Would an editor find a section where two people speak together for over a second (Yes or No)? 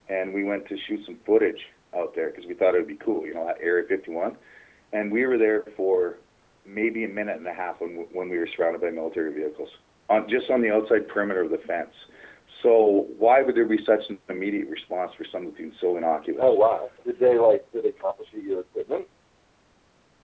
No